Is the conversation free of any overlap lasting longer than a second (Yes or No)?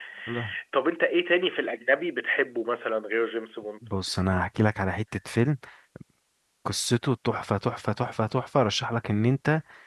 Yes